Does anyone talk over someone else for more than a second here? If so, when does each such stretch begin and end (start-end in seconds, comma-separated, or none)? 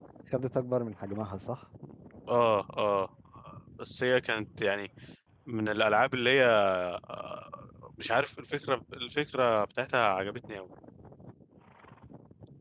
none